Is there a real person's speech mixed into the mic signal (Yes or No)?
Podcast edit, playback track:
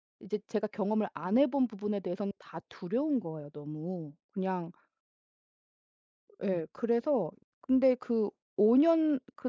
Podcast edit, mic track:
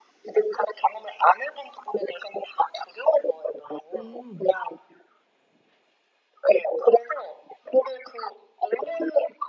Yes